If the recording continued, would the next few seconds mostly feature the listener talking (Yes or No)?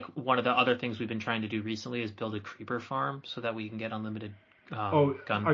Yes